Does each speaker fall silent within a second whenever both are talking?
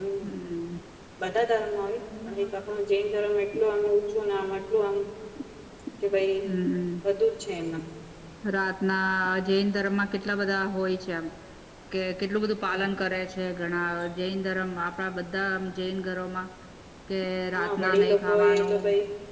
No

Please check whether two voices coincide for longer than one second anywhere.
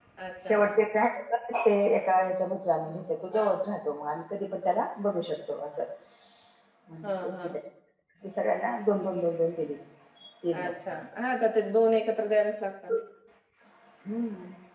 No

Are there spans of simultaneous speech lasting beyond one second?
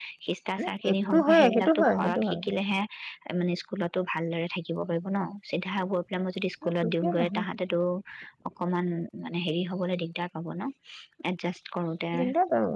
Yes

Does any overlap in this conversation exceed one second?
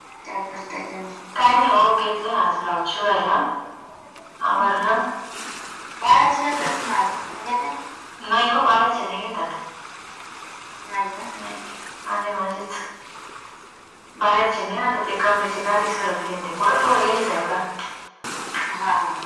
No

